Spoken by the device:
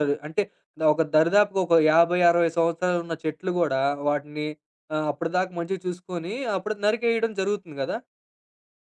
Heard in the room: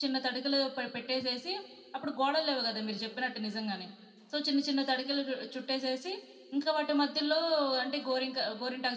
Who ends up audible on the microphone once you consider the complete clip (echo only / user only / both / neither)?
user only